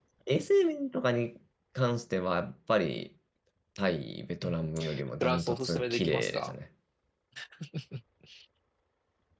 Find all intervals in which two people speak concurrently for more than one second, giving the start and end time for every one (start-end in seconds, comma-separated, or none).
5.2-6.5